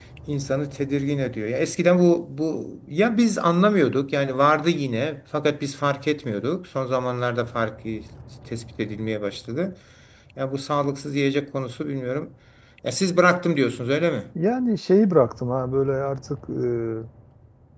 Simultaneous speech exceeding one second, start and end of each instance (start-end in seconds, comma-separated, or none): none